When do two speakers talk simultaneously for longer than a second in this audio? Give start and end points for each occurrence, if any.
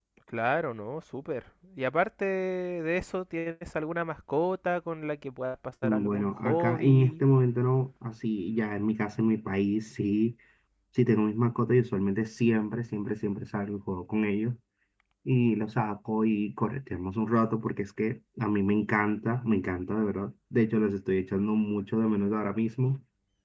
5.8-7.1

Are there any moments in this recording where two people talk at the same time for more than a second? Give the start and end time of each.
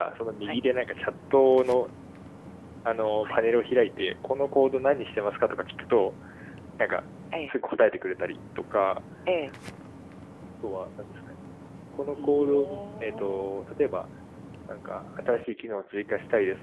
12.2-13.5

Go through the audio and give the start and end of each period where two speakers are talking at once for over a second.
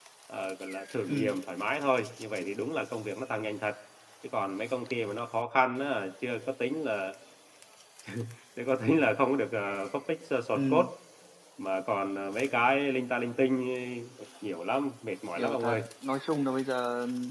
none

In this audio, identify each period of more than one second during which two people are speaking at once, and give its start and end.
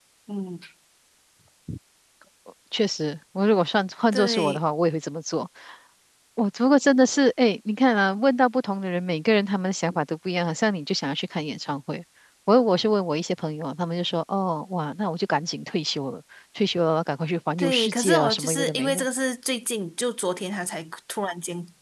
17.6-19.0

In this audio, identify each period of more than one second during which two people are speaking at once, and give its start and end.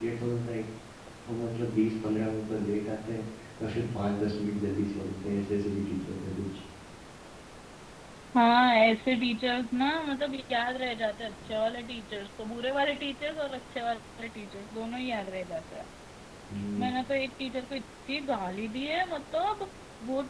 none

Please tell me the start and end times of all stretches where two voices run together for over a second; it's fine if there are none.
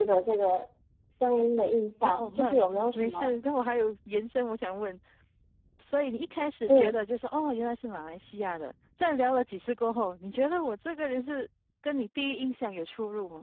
2.0-3.3

